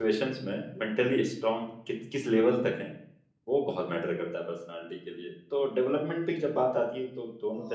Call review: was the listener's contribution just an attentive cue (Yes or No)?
No